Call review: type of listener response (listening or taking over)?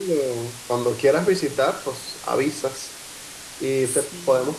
listening